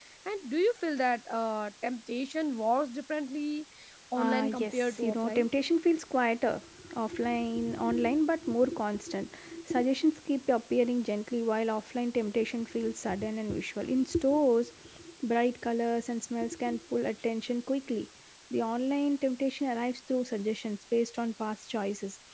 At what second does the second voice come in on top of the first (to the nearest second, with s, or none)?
4 s